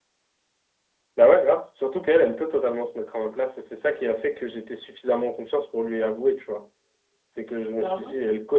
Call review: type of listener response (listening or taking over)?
listening